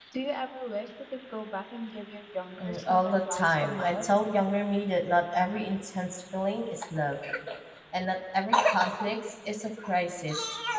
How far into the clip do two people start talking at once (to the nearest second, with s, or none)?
3 s